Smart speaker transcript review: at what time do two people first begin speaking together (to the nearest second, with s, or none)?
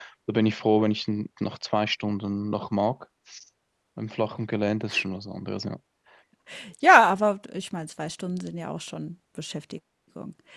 none